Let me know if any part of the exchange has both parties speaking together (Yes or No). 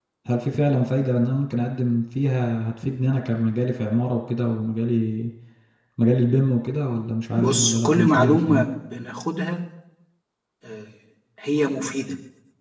Yes